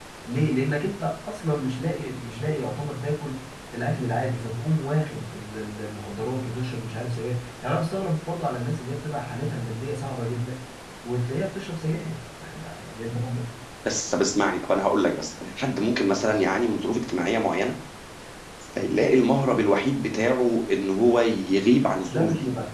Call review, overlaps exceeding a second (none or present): none